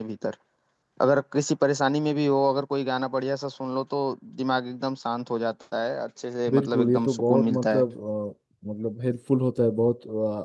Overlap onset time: 6.5 s

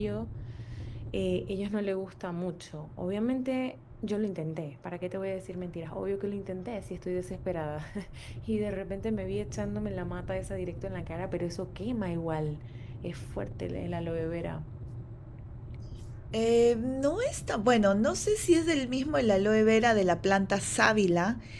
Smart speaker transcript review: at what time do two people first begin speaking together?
none

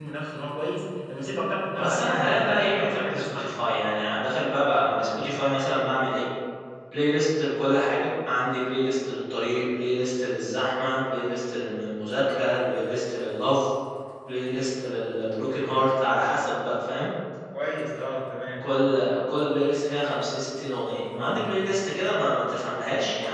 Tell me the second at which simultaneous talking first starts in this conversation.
1.8 s

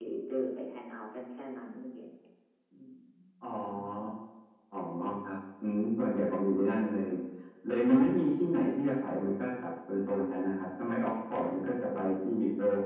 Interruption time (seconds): none

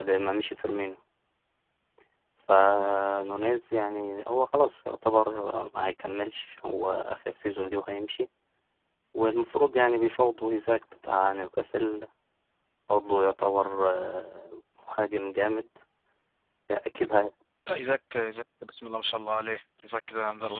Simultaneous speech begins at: none

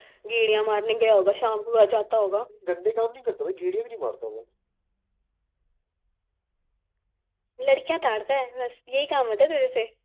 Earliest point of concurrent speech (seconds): none

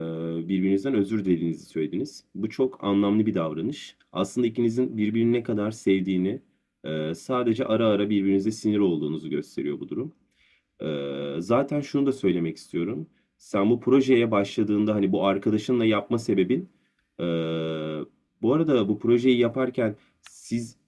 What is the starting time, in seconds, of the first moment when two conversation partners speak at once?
none

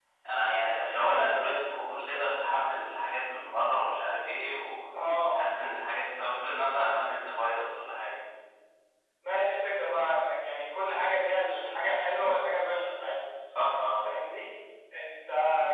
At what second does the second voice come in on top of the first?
0.6 s

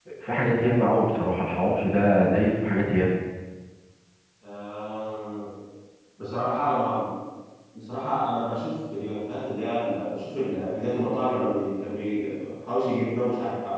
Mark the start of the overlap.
none

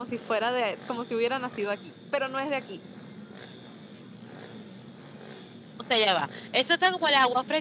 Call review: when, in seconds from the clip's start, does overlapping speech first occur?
none

